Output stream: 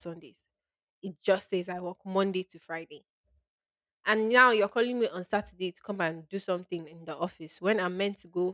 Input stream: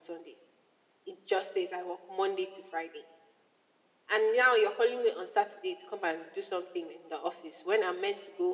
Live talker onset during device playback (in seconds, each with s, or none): none